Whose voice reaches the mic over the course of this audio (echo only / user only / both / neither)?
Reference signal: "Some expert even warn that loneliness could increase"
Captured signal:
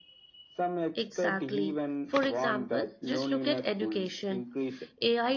both